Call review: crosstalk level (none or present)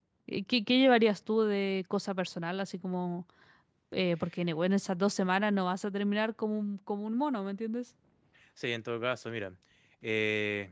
none